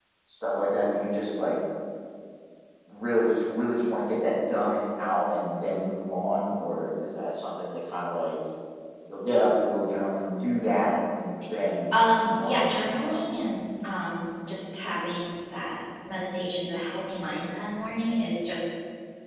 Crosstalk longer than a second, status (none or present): present